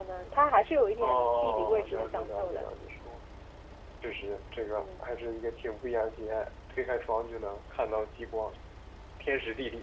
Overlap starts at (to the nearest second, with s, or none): 1 s